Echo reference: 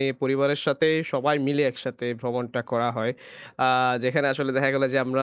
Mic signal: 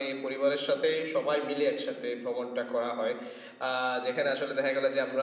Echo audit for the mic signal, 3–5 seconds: echo only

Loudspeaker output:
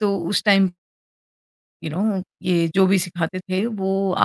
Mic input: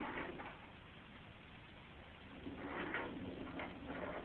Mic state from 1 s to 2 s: neither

